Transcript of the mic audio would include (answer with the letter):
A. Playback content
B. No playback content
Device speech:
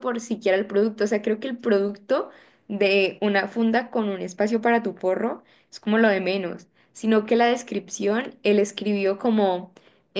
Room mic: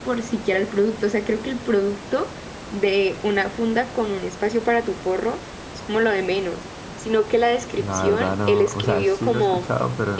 A